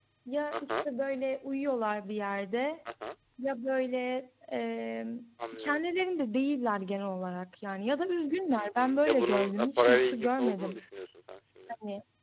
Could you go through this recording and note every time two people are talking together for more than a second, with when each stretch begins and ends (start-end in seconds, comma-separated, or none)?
8.6-10.8